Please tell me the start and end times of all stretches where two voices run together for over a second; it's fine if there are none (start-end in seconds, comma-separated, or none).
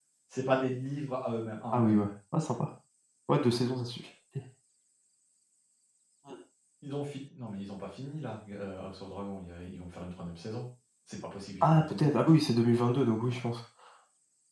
none